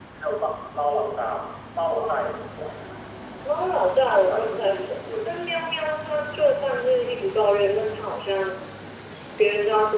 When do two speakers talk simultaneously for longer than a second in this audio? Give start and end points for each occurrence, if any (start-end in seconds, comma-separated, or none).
4.1-5.3